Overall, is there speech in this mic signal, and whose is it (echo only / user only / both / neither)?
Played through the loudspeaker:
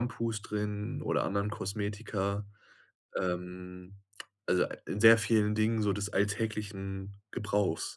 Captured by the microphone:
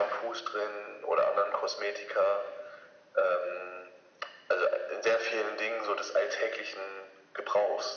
echo only